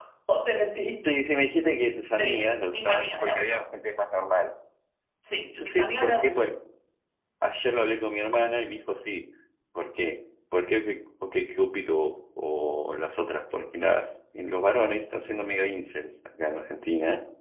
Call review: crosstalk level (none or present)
present